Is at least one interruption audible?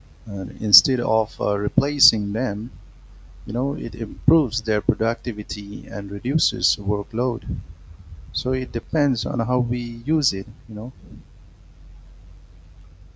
No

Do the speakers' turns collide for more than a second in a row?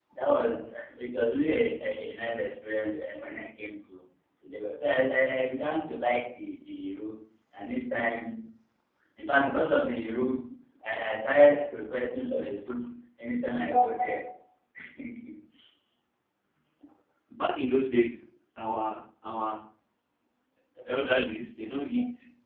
No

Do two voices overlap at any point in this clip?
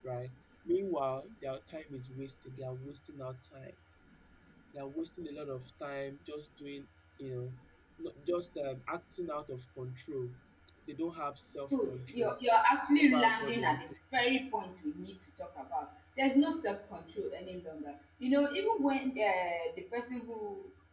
Yes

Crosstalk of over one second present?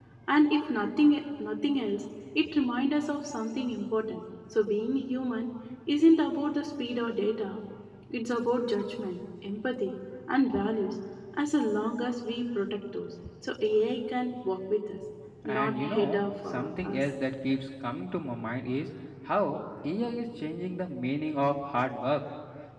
Yes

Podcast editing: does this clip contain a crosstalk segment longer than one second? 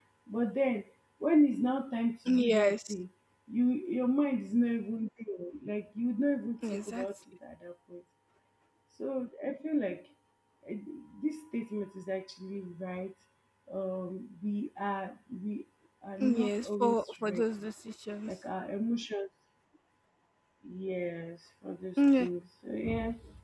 Yes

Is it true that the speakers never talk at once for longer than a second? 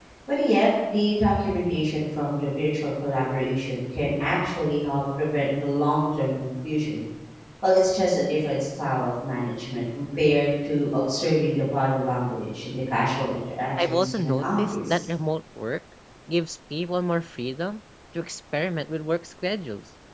No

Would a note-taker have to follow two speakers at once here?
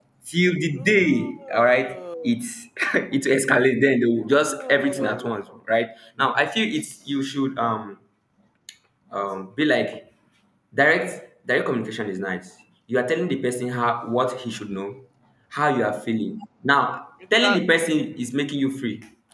Yes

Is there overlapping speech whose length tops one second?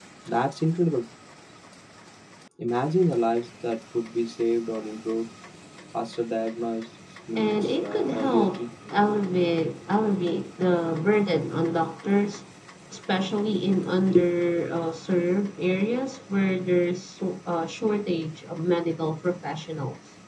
Yes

